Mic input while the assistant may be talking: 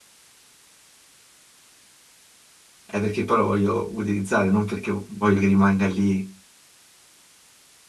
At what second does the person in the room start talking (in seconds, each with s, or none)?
2.8 s